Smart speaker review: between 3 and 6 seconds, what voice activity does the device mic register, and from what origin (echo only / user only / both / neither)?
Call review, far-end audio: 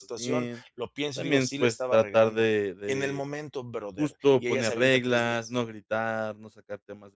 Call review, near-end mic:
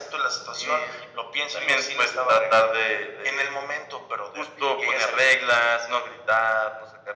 echo only